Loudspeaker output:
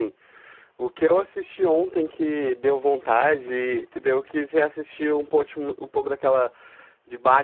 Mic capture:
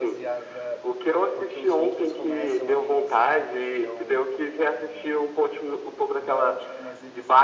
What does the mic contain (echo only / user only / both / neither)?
both